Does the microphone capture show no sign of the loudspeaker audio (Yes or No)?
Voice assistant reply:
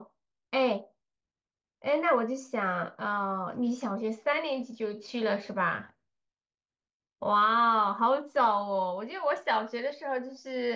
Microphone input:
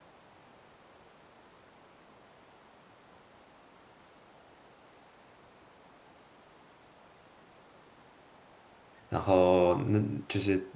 Yes